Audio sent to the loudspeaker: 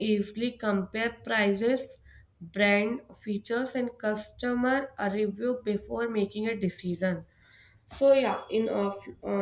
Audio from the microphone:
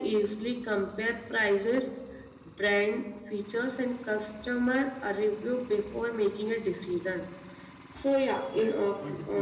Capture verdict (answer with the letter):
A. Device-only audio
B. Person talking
B